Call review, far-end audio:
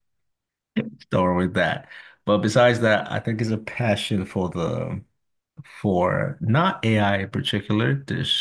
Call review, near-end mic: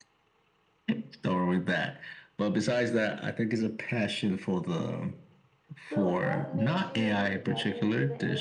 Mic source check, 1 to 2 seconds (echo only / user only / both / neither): echo only